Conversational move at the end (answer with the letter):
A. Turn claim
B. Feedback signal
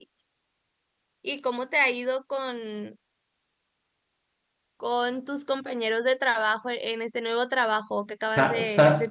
A